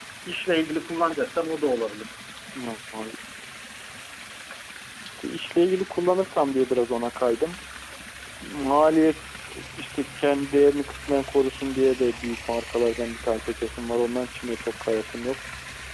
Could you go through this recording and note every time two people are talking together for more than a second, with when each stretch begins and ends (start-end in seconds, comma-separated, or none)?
none